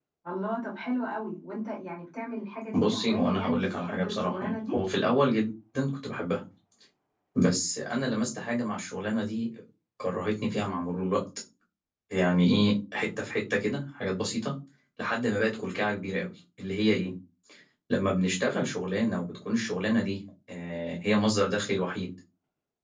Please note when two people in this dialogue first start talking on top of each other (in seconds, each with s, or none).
2.7 s